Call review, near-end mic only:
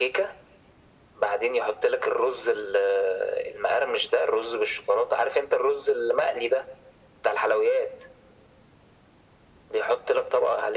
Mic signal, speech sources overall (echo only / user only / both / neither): echo only